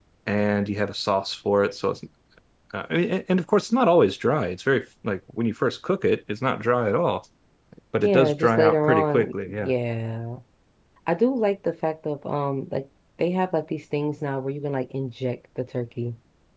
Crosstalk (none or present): present